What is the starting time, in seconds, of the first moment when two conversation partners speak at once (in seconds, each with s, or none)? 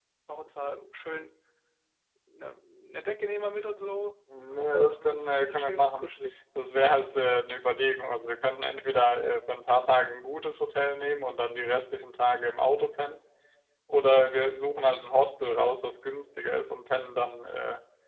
4.3 s